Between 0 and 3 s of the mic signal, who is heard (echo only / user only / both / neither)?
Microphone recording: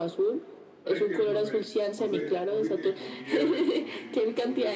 both